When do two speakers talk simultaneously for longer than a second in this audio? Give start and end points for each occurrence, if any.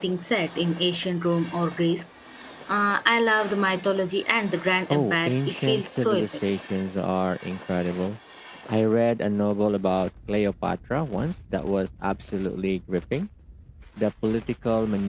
4.9-6.3

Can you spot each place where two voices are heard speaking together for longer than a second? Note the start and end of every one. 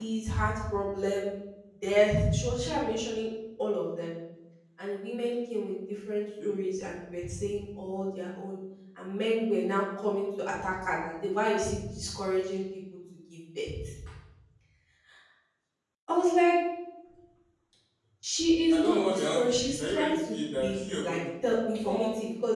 18.7-21.2

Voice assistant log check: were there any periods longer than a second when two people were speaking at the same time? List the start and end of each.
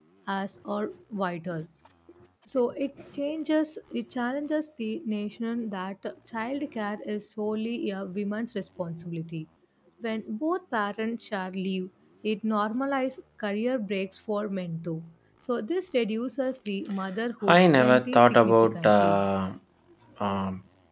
17.5-19.2

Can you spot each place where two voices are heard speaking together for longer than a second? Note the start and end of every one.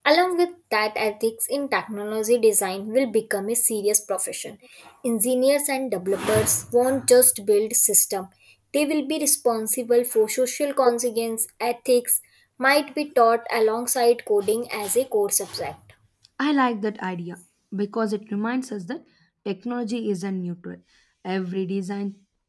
none

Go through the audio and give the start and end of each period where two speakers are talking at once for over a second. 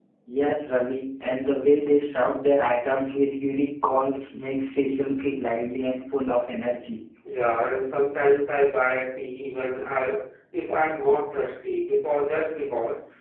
none

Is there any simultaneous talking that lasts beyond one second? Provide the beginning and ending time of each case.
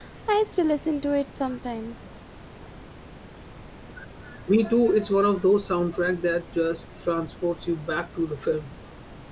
none

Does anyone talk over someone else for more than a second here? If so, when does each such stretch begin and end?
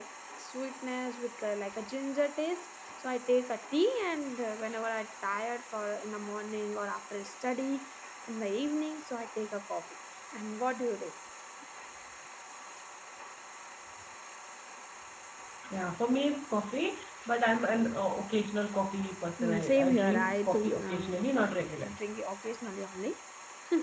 19.4-21.2

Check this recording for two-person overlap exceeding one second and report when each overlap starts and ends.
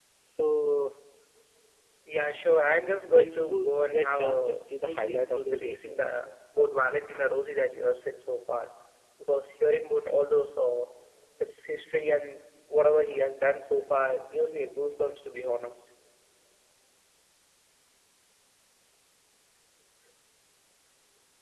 2.6-6.2

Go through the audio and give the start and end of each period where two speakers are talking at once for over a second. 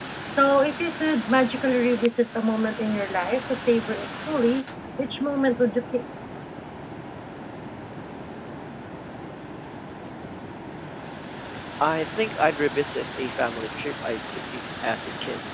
none

